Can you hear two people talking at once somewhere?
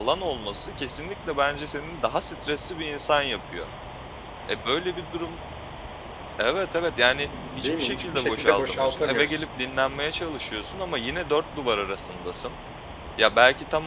Yes, from 7.6 s

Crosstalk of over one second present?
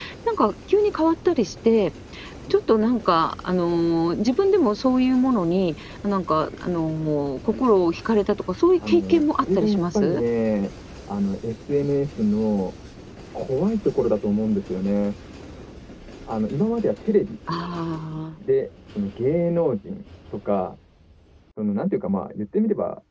Yes, from 8.8 s

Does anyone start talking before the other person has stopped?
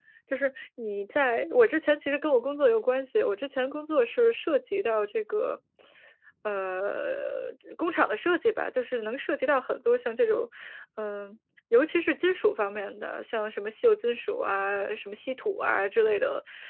No

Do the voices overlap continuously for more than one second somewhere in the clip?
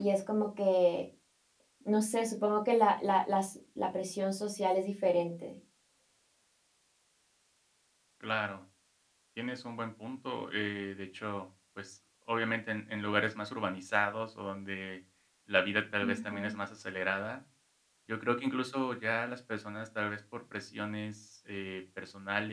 No

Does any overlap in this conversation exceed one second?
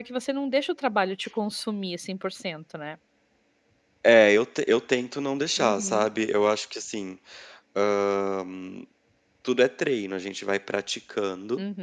No

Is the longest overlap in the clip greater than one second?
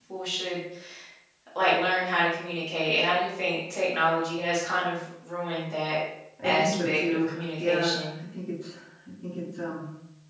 Yes, from 6.4 s

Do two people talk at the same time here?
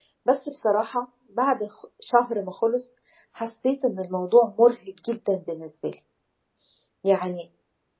No

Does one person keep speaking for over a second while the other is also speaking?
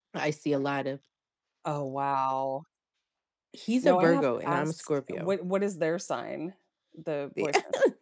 Yes, from 3.8 s

